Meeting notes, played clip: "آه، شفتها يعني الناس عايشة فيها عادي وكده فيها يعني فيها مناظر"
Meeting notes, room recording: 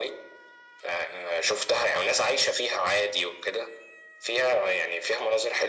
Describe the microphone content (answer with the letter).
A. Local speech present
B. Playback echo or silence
B